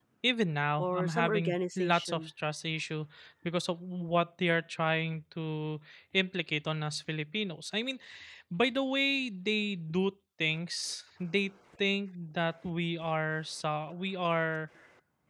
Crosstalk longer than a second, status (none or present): present